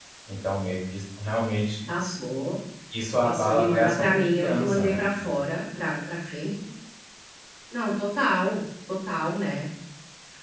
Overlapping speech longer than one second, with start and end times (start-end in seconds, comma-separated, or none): 3.2-5.0